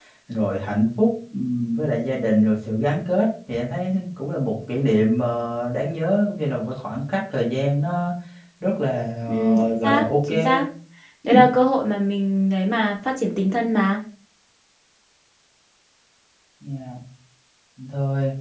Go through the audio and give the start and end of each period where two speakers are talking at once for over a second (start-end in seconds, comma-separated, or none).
9.3-10.6